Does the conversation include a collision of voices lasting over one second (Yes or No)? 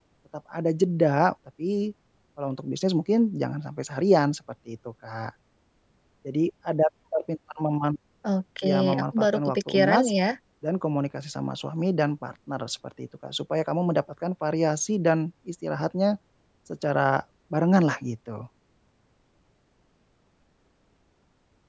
Yes